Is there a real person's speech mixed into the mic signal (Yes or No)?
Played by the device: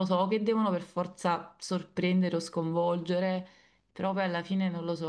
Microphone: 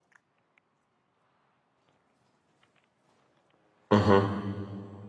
Yes